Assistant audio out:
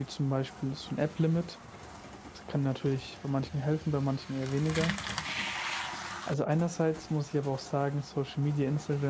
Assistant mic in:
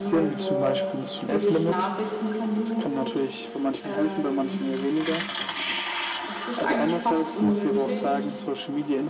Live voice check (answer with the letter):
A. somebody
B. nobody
A